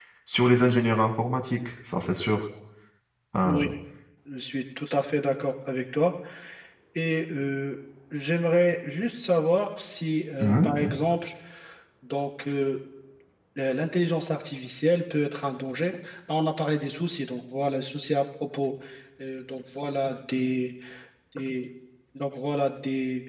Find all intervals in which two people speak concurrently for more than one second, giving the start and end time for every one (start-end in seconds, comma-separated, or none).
none